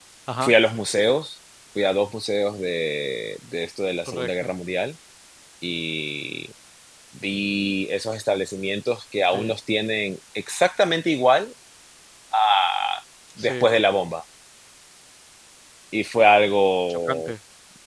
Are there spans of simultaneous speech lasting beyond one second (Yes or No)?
No